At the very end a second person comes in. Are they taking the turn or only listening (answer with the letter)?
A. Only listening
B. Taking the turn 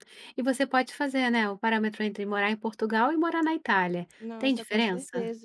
B